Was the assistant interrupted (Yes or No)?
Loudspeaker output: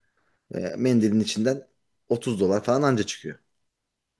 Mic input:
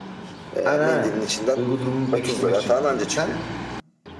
Yes